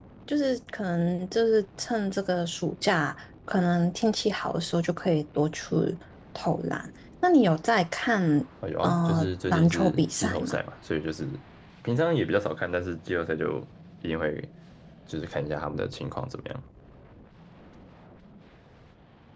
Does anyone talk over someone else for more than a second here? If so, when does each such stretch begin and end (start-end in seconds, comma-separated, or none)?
8.8-10.6